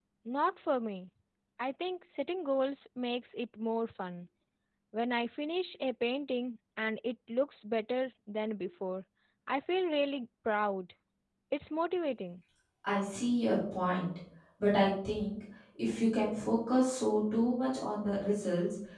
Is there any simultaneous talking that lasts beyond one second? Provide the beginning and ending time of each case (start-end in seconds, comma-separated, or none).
none